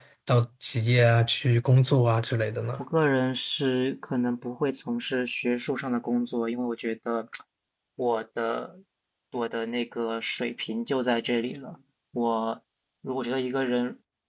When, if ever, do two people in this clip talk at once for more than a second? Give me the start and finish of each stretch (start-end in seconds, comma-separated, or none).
none